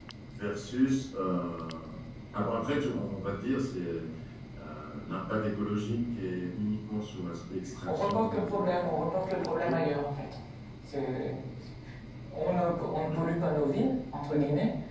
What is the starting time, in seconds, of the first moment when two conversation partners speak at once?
7.9 s

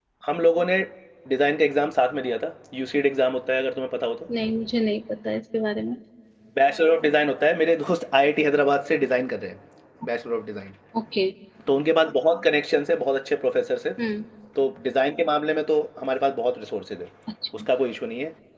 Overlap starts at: none

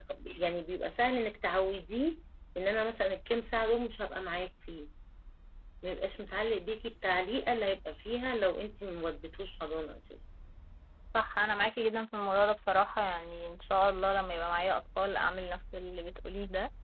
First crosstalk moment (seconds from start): none

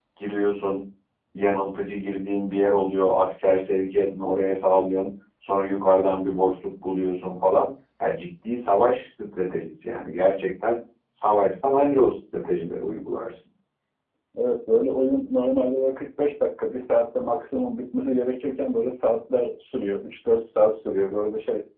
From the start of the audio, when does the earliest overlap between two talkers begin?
none

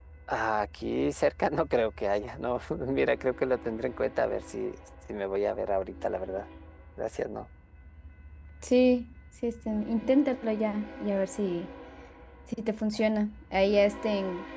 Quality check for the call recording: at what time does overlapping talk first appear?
none

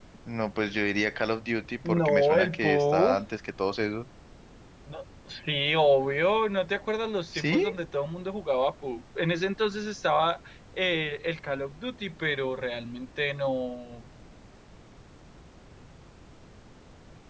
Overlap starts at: 1.9 s

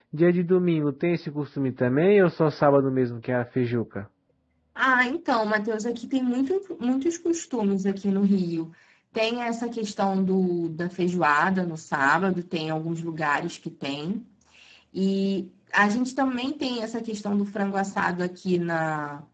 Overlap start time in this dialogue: none

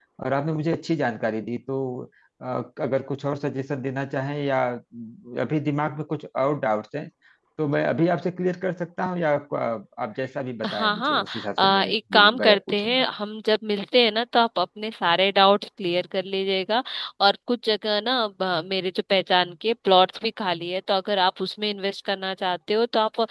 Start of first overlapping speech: 10.6 s

